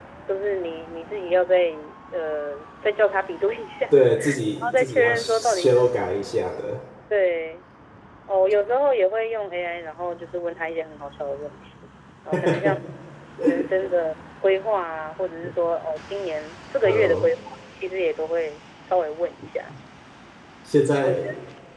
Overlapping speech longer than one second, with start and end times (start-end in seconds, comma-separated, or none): 4.3-5.9